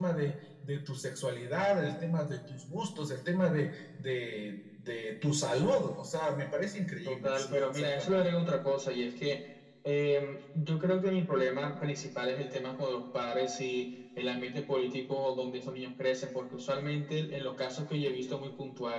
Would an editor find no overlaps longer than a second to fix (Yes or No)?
No